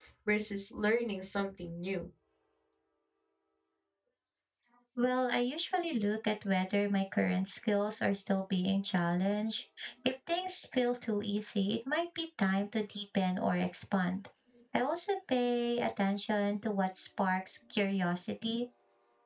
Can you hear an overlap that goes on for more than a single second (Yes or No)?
No